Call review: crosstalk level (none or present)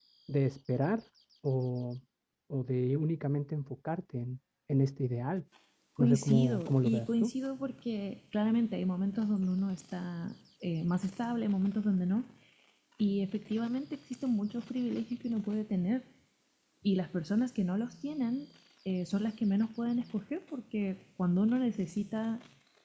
present